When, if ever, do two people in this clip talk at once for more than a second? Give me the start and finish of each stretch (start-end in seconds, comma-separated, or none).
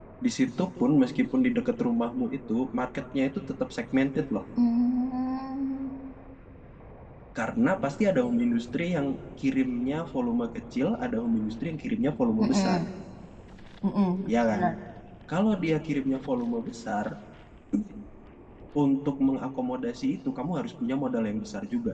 none